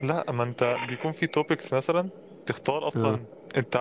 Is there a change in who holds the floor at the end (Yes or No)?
No